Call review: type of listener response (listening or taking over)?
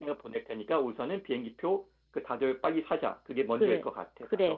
taking over